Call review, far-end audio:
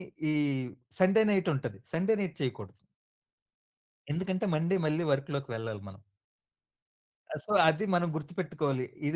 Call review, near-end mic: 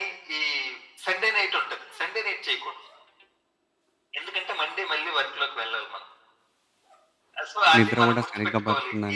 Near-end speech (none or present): present